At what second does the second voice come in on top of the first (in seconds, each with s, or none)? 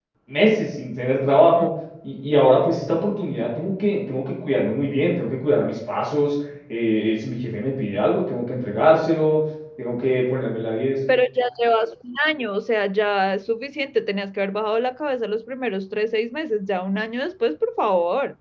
none